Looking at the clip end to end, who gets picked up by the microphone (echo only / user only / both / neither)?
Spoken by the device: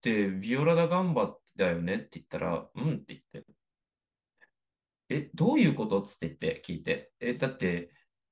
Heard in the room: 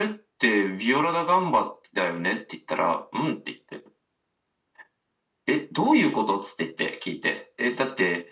echo only